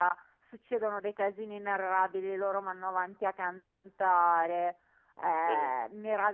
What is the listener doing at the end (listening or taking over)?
listening